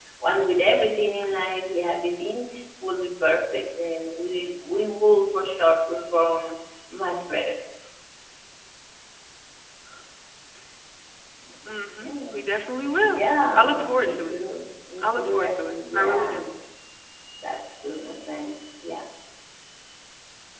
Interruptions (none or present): present